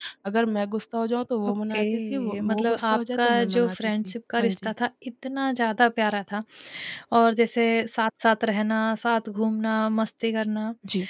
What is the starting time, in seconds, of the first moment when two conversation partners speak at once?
1.5 s

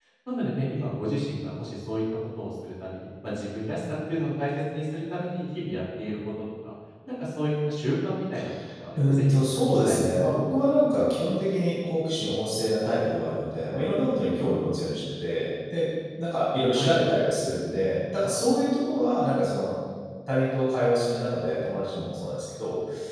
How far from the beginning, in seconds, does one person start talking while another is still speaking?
9.0 s

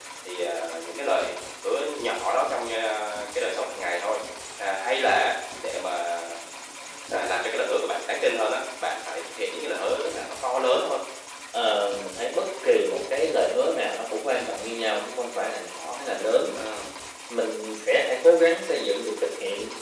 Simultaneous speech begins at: none

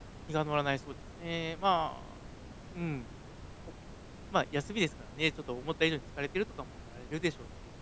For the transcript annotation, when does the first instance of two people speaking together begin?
none

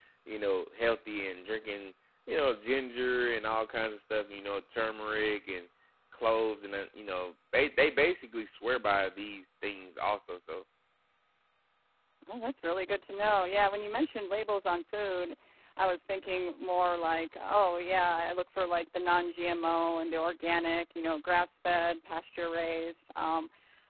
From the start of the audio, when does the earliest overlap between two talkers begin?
none

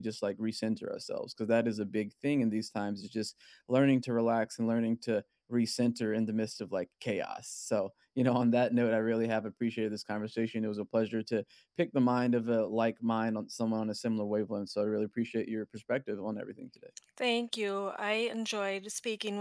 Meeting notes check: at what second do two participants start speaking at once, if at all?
none

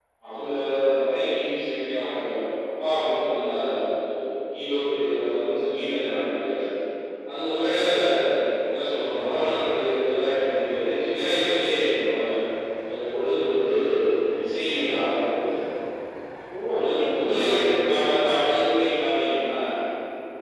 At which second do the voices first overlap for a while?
16.7 s

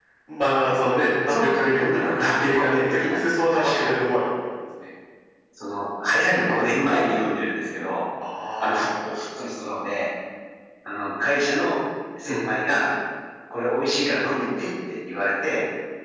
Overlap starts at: 1.4 s

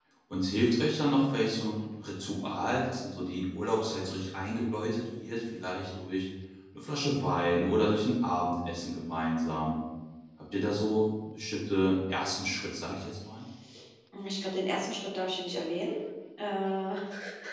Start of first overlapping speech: none

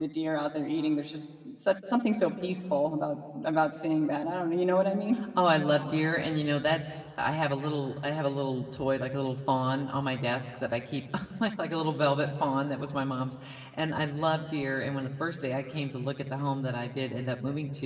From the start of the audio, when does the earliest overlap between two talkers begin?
none

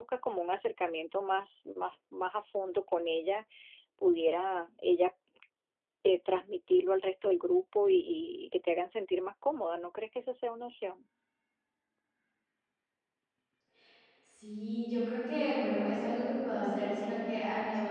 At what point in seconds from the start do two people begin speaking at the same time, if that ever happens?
none

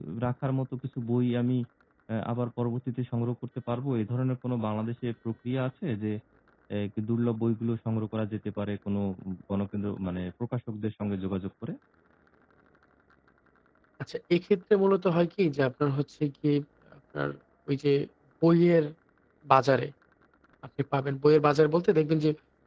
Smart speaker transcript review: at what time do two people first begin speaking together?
none

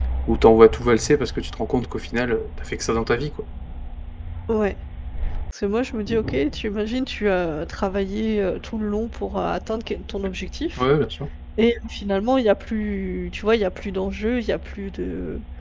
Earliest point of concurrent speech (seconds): none

